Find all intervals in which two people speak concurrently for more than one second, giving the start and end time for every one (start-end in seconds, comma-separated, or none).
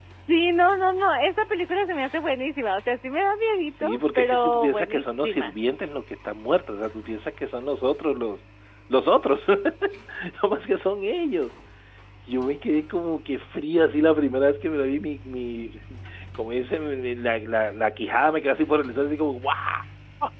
3.8-5.6